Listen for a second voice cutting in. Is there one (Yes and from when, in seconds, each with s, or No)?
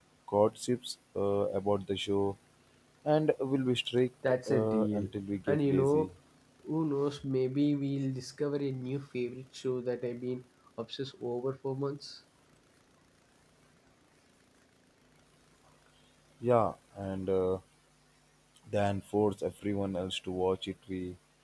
Yes, from 4.5 s